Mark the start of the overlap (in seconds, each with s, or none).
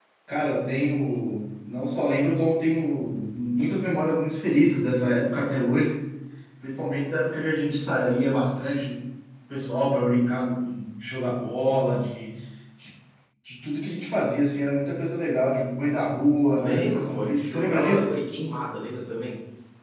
16.5 s